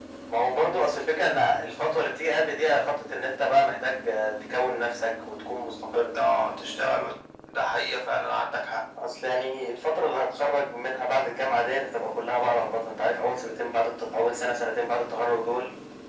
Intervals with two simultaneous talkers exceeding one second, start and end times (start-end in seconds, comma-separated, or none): none